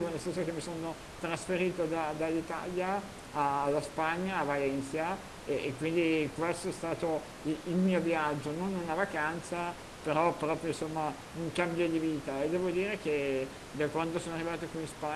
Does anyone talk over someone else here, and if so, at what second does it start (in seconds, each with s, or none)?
none